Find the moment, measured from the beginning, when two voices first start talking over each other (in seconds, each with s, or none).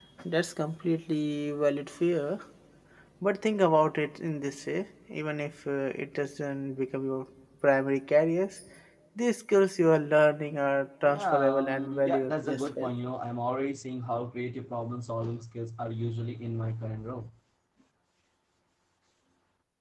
11.1 s